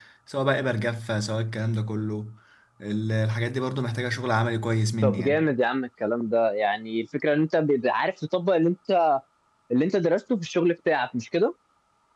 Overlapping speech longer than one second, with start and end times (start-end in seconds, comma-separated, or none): none